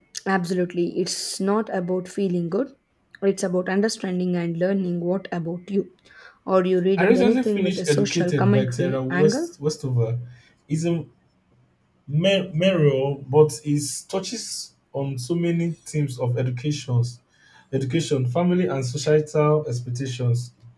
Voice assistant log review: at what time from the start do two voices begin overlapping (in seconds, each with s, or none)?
7.0 s